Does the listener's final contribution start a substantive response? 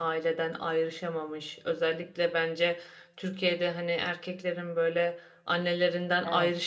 No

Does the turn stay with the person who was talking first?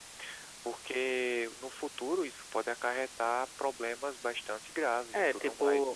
No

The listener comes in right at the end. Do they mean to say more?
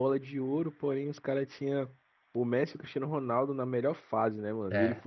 No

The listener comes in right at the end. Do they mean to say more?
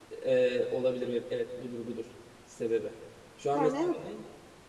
No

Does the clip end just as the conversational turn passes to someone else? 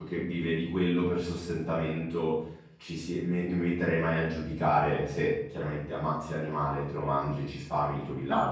No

